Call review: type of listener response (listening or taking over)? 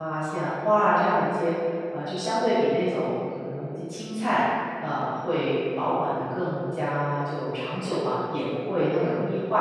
listening